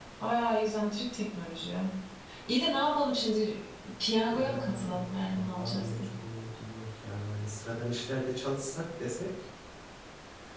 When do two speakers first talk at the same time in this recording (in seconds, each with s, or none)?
4.3 s